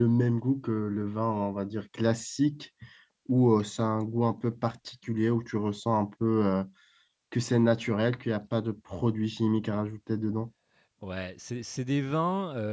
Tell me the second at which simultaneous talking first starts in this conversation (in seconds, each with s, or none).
none